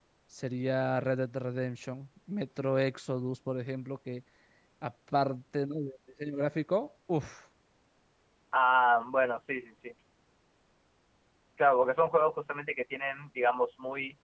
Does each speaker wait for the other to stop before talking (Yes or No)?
Yes